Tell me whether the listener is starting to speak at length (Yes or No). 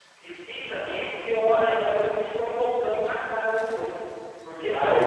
Yes